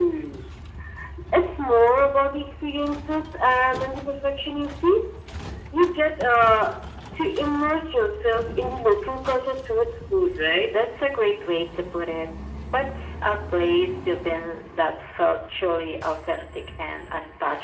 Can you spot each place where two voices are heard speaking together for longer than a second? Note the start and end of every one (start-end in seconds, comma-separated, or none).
none